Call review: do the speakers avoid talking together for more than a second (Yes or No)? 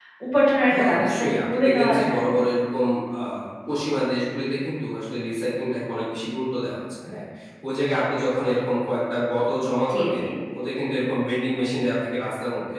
No